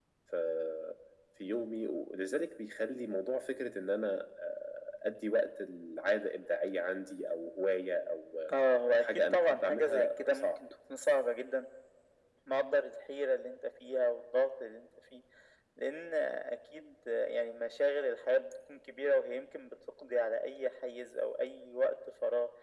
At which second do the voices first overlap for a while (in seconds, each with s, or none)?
8.9 s